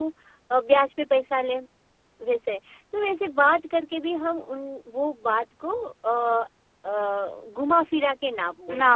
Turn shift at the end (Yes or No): Yes